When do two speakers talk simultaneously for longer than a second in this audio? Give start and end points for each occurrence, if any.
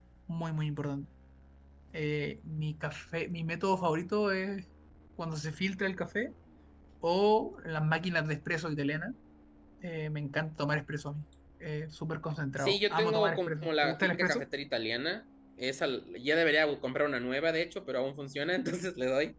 12.6-14.4

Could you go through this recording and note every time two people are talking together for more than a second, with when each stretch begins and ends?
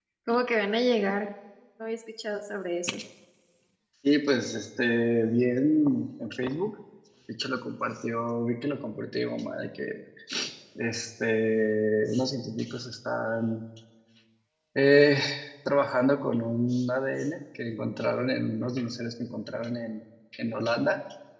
none

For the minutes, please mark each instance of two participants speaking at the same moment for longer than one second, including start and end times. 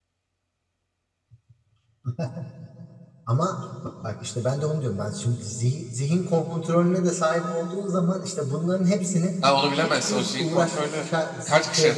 9.8-11.0

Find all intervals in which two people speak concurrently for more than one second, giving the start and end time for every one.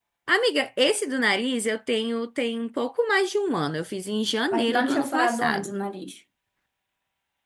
4.5-5.7

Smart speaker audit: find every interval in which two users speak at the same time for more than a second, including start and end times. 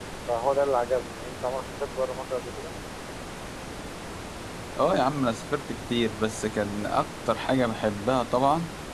none

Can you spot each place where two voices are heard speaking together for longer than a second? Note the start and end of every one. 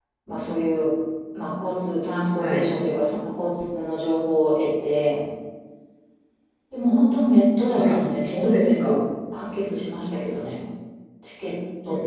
7.8-9.0

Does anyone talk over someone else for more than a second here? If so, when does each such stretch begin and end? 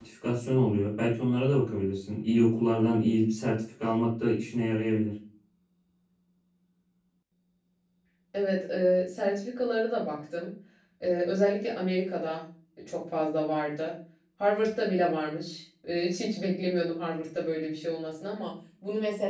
none

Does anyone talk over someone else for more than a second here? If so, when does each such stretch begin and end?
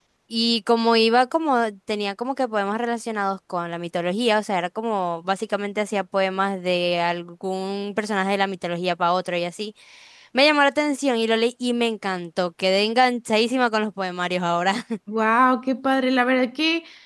none

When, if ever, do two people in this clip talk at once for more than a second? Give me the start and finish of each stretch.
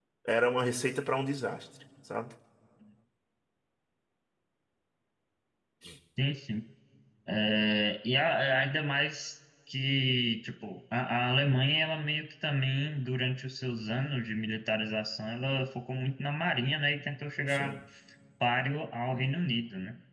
none

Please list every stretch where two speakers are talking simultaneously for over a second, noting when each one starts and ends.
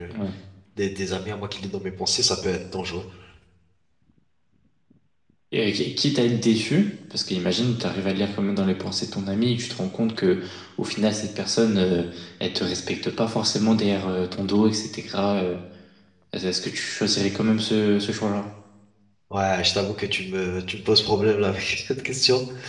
none

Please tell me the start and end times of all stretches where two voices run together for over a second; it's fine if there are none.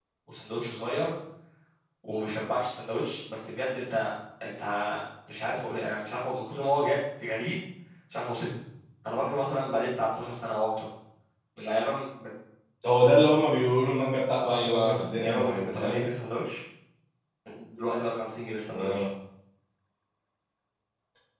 14.3-16.1

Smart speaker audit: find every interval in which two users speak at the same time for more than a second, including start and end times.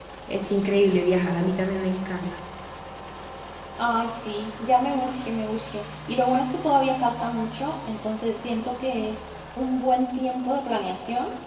none

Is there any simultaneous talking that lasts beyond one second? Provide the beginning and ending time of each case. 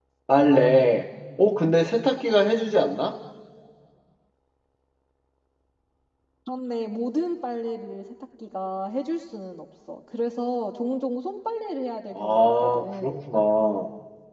12.1-13.4

